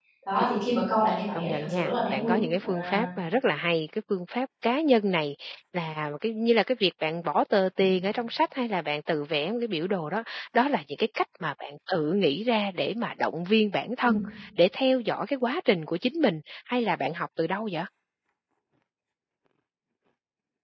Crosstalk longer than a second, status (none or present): present